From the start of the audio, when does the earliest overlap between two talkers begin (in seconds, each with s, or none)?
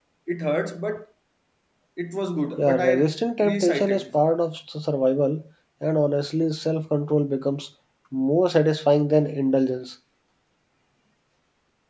2.6 s